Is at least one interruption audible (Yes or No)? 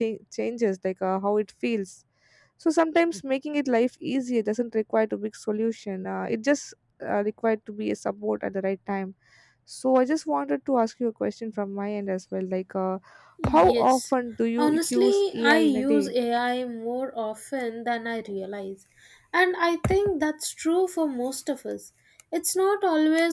Yes